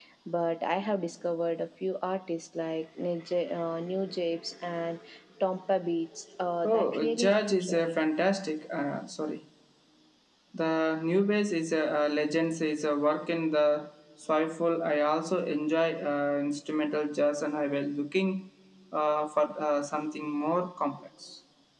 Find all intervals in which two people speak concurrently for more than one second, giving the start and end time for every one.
6.6-7.9

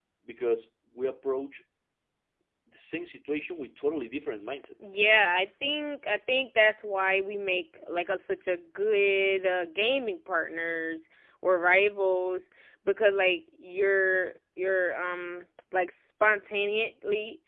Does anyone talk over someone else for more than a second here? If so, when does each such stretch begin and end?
none

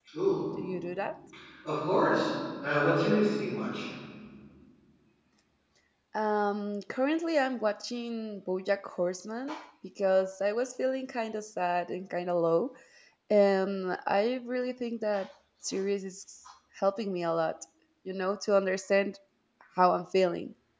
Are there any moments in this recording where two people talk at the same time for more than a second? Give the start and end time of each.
none

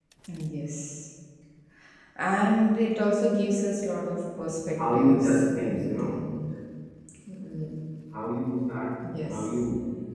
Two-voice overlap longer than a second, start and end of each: 4.9-6.2

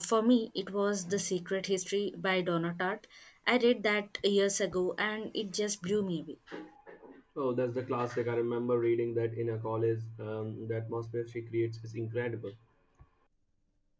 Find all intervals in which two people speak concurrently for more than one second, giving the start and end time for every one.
none

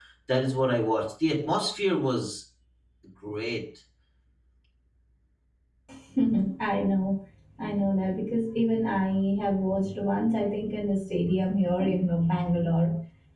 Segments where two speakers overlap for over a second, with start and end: none

